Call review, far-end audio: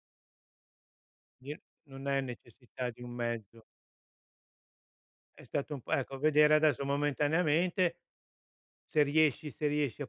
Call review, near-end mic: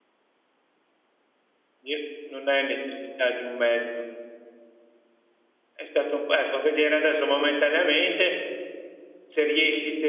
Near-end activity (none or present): none